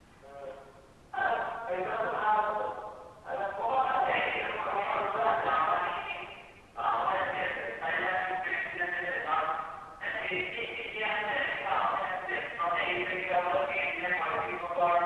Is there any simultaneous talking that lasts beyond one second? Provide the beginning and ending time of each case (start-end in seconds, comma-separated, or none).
4.1-5.9